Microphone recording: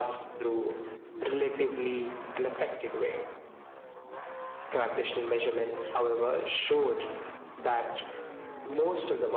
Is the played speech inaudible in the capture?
No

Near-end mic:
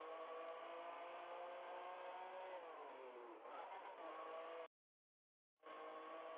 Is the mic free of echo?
Yes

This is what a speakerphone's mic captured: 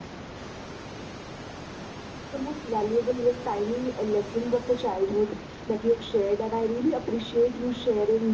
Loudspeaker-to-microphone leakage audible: No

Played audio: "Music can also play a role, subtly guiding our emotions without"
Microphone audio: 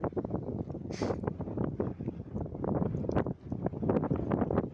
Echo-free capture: Yes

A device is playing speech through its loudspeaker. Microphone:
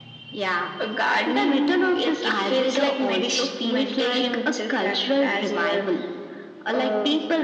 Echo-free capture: No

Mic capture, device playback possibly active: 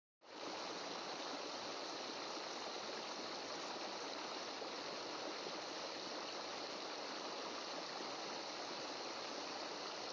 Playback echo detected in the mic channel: No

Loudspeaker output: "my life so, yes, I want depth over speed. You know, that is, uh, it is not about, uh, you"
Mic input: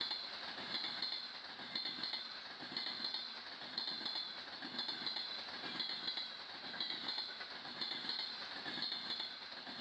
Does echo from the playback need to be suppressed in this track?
No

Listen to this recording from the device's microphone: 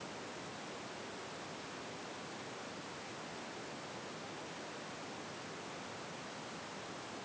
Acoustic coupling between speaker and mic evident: No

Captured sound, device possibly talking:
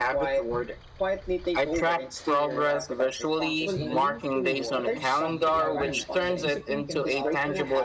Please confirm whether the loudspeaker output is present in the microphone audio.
Yes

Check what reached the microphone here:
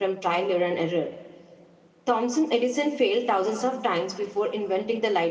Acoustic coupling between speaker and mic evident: No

